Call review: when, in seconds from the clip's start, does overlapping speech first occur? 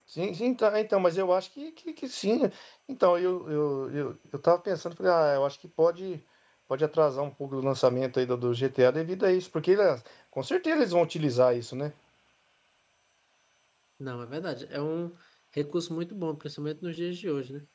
none

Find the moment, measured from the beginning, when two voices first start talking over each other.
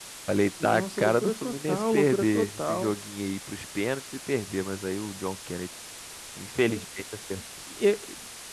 0.6 s

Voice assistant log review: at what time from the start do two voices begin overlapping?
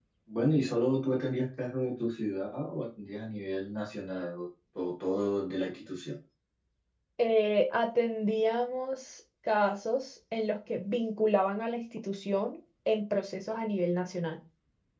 none

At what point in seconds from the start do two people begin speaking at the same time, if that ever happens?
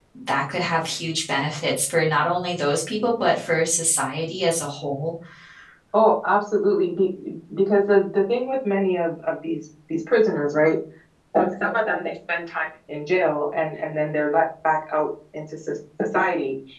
none

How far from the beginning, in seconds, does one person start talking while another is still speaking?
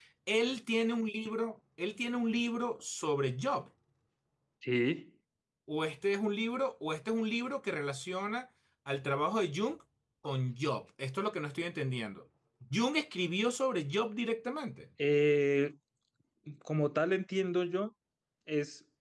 none

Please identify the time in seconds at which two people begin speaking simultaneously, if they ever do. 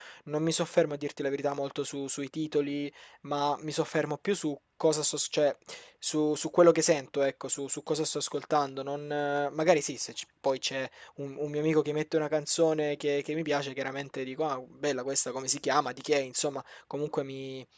none

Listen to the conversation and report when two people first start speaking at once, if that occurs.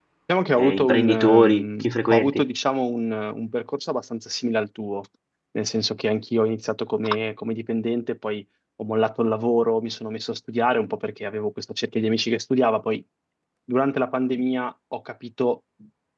0.6 s

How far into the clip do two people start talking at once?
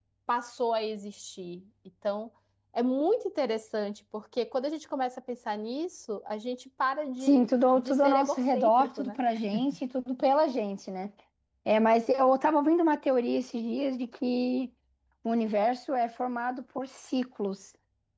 7.2 s

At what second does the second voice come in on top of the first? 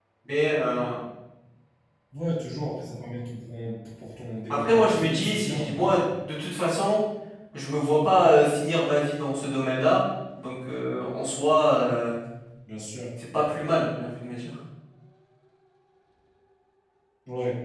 4.5 s

